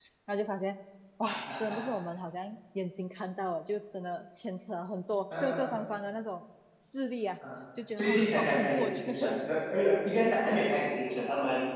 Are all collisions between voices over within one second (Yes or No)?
No